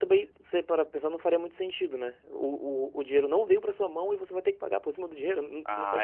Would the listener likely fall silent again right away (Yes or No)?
No